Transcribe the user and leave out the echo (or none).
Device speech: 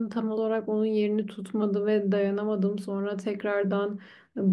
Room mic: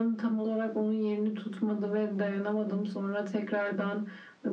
none